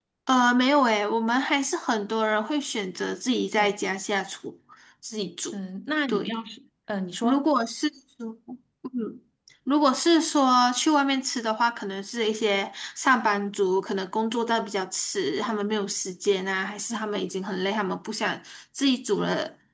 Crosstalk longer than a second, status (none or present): none